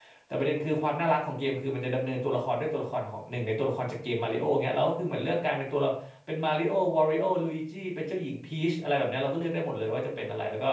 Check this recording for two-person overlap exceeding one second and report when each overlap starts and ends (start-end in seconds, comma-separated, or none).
none